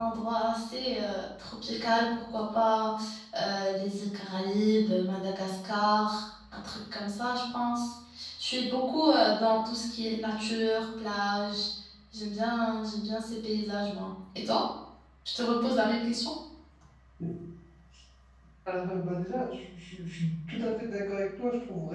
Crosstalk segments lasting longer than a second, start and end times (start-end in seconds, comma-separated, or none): none